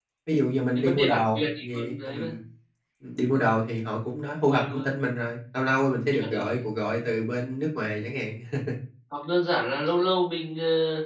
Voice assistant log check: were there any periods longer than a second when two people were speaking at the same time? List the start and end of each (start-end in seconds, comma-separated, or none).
0.8-2.3